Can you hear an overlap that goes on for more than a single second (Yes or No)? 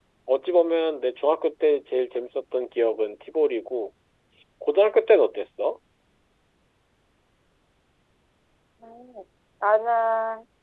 No